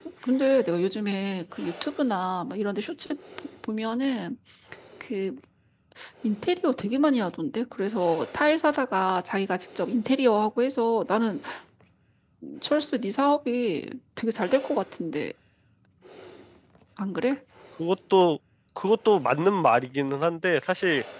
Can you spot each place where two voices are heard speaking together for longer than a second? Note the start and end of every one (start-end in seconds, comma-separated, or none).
none